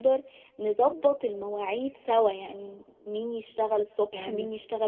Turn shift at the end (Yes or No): No